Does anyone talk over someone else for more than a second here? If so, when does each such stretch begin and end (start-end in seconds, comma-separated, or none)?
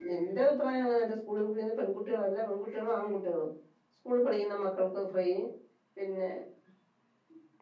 none